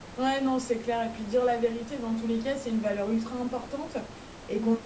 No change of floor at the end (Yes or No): Yes